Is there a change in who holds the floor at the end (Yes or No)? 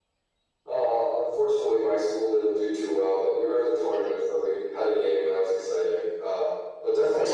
No